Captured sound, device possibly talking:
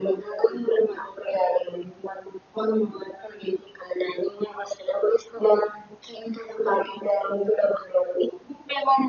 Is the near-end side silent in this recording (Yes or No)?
Yes